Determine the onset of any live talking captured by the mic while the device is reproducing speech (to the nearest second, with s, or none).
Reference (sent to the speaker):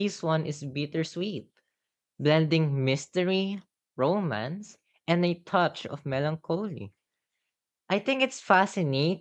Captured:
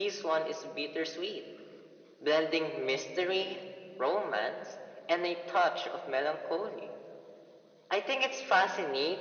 none